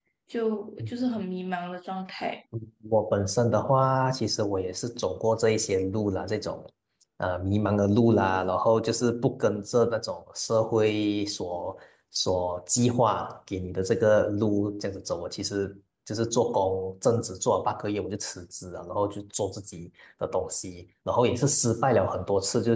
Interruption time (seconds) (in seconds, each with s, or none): none